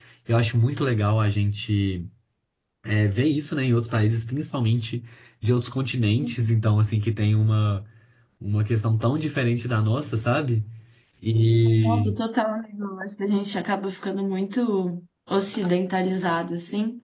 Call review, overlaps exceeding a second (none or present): none